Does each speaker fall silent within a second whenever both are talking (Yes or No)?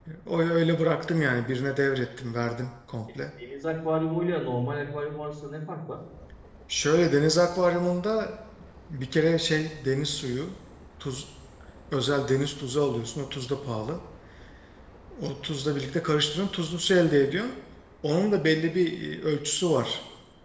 Yes